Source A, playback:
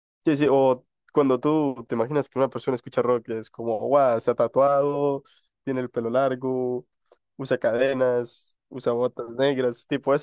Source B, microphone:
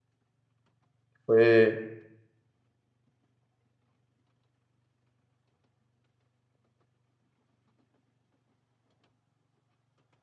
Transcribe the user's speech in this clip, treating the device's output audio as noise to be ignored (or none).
fue,